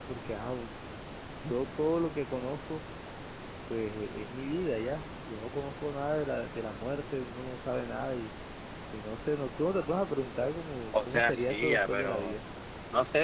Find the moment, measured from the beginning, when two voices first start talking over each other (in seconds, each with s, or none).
10.9 s